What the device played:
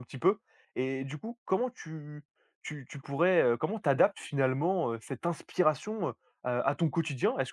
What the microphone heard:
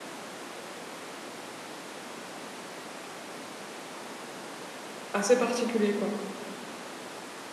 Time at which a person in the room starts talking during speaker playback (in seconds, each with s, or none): 5.1 s